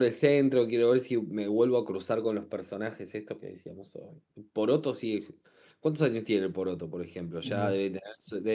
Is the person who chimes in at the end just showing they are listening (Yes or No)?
Yes